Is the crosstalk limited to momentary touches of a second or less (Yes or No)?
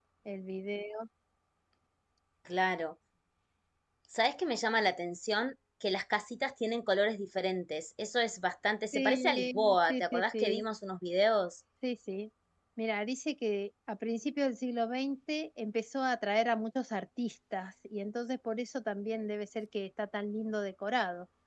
No